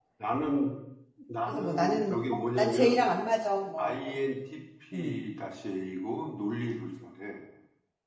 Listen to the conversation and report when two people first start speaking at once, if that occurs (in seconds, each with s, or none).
1.5 s